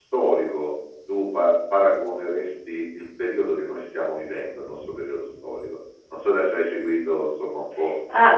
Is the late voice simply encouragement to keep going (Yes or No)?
No